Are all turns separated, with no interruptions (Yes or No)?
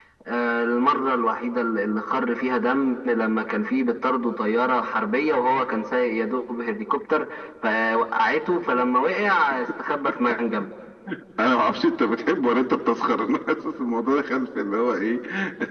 Yes